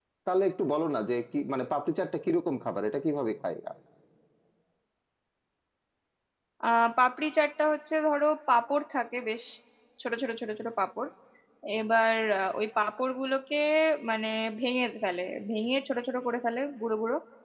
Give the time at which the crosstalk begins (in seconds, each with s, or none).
none